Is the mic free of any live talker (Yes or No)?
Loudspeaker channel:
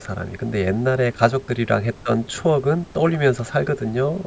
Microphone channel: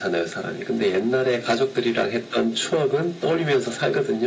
Yes